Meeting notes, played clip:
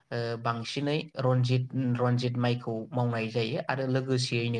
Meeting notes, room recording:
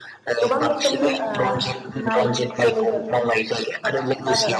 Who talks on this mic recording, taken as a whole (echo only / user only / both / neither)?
both